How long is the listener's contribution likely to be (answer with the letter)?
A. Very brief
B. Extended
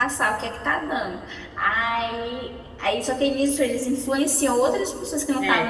A